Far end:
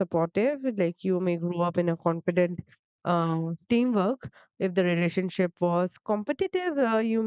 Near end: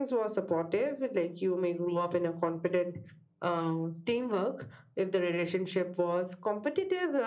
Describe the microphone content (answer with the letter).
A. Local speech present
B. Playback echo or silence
B